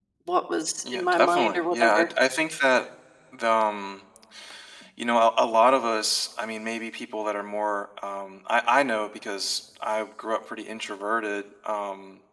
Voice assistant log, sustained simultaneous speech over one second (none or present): present